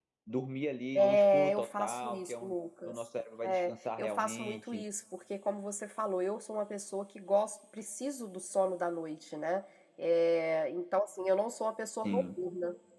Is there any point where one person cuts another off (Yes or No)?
Yes